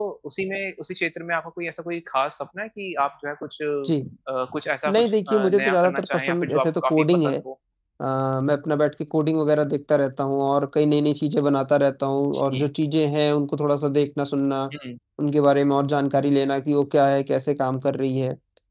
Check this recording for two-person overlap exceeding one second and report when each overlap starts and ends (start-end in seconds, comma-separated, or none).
4.9-7.4